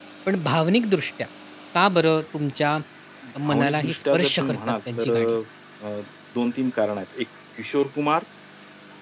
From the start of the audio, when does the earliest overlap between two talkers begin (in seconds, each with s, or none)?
3.4 s